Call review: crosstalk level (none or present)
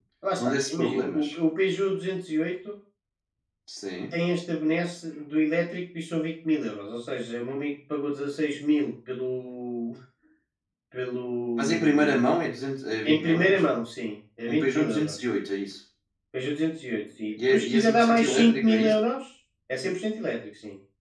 present